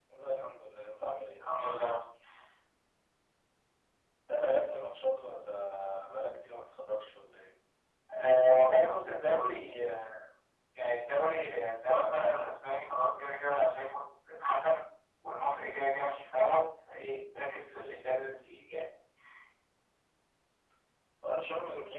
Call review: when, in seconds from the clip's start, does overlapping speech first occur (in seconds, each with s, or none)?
none